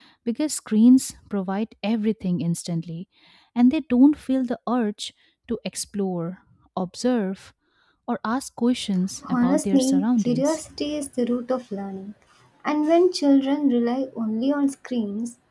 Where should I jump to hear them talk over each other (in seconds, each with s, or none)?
9.2 s